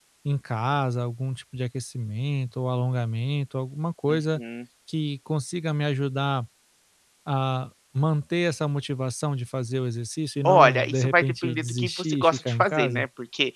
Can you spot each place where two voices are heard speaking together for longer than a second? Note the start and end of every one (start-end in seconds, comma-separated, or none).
10.5-13.1